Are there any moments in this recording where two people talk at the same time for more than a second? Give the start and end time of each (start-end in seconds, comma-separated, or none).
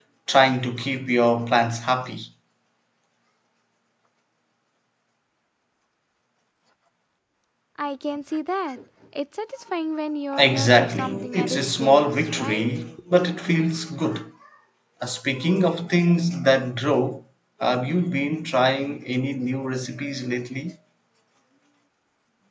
10.4-12.7